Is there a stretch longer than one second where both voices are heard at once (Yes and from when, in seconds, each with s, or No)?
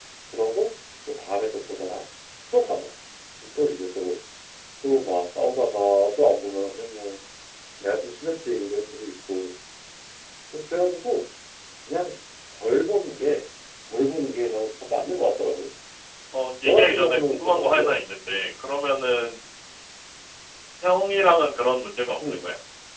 Yes, from 16.6 s